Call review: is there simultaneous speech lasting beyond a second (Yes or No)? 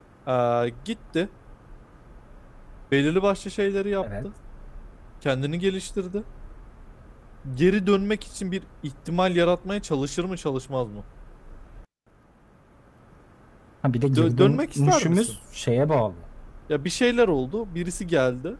Yes